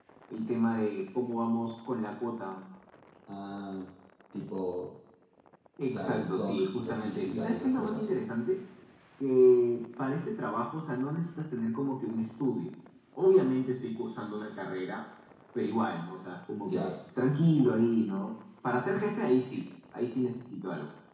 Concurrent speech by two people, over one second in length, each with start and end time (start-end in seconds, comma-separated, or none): 5.9-8.1